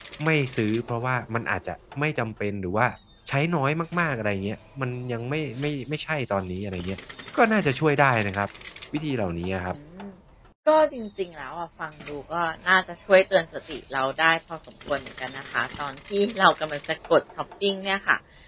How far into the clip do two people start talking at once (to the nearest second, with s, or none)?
none